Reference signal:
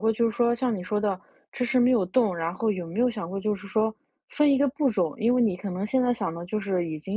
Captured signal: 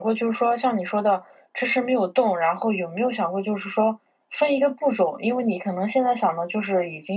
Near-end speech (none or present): none